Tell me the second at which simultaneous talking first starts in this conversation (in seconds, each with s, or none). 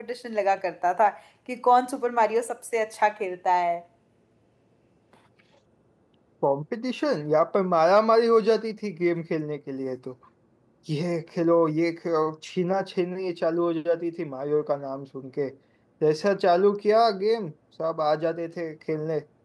none